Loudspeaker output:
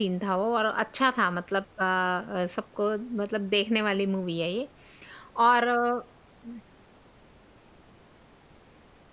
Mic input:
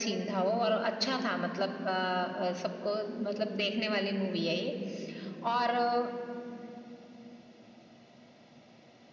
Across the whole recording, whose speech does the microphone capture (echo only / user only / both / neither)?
echo only